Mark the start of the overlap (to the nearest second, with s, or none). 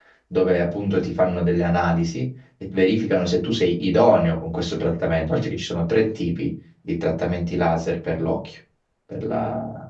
none